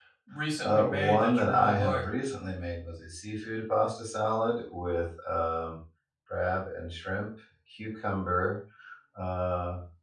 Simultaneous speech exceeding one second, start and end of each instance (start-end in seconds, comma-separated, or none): 0.6-2.0